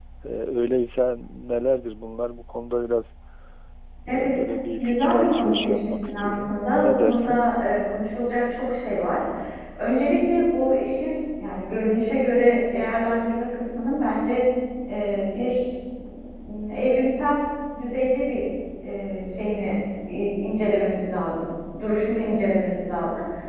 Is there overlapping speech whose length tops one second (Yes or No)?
Yes